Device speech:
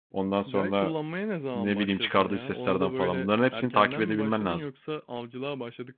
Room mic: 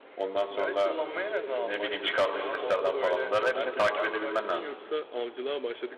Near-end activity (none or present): none